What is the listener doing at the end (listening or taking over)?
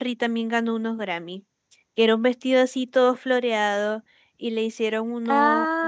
listening